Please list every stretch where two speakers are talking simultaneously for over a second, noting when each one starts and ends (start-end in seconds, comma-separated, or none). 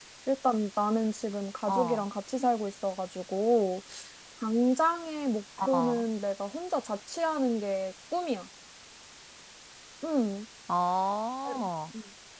none